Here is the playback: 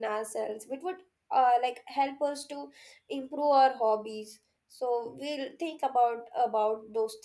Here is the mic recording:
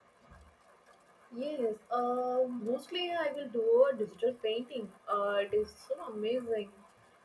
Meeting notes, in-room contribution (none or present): present